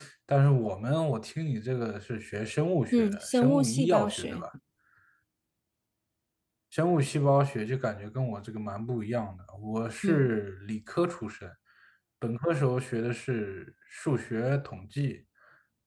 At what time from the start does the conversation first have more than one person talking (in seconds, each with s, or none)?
2.9 s